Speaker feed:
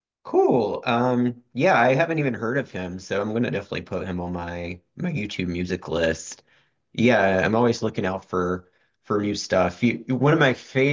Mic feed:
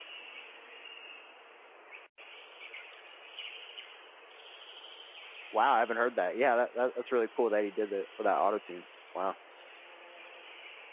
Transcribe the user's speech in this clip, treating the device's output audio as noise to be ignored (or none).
wow. I haven't heard that. Yeah, that, that that's really cool that he did that for that auto tune. Wow.